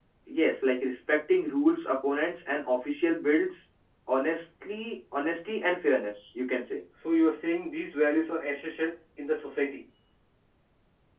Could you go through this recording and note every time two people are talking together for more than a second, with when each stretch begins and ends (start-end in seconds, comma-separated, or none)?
none